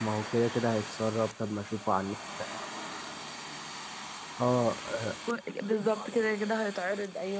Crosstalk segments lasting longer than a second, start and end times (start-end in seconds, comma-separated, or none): none